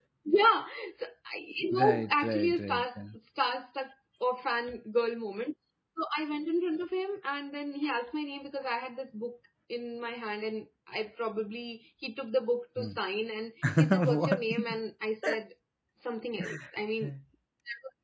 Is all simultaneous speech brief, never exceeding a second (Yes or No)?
No